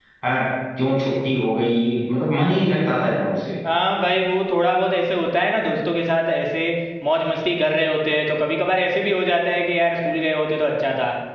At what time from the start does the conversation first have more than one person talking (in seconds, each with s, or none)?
none